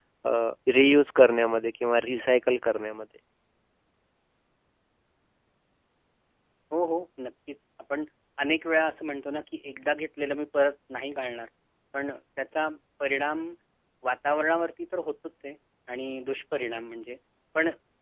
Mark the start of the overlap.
none

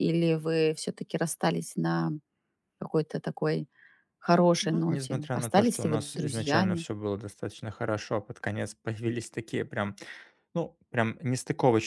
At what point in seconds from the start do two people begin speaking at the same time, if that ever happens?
4.6 s

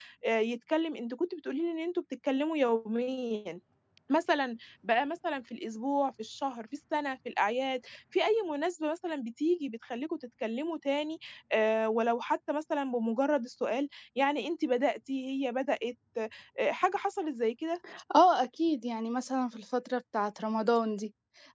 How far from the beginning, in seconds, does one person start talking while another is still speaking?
none

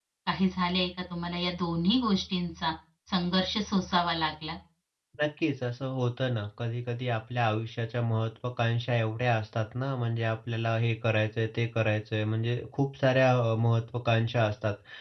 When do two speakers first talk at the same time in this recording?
none

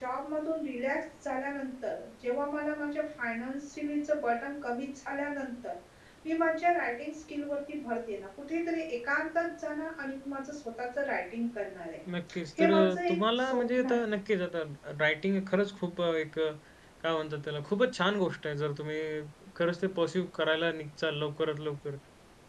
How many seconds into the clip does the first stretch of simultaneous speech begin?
12.6 s

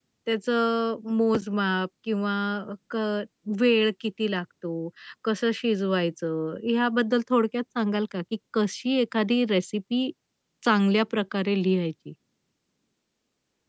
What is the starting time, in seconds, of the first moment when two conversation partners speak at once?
none

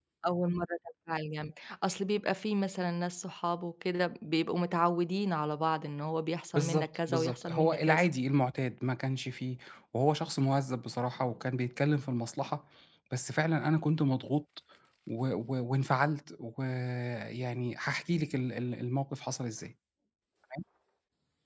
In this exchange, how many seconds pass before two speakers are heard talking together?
6.5 s

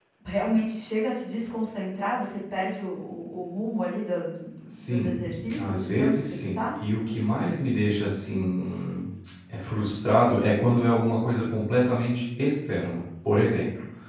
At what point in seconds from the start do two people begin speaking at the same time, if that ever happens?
4.7 s

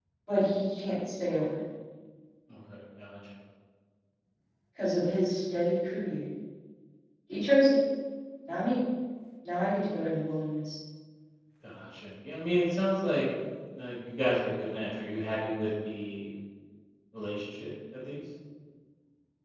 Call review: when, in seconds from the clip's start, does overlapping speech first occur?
none

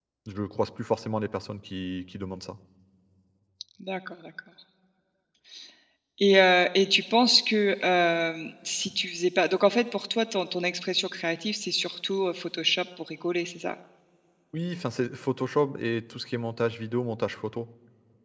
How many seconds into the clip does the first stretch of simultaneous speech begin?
none

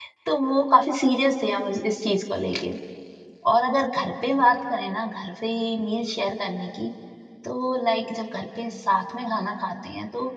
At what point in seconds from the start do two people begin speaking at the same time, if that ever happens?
none

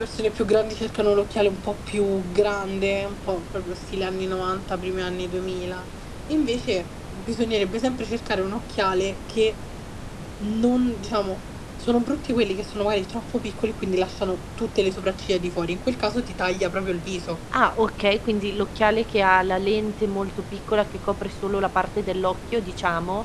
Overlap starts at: none

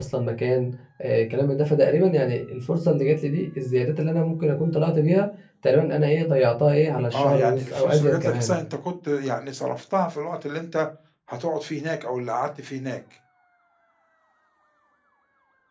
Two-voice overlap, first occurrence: 7.1 s

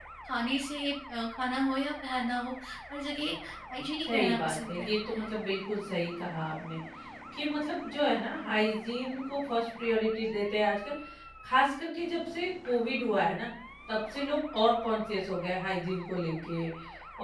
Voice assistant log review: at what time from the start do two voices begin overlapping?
4.1 s

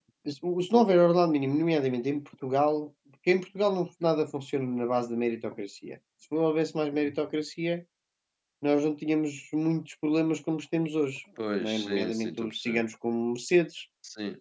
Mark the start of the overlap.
11.6 s

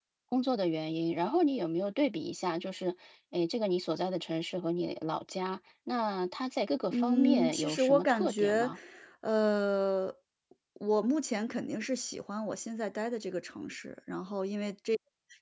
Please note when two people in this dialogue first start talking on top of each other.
6.9 s

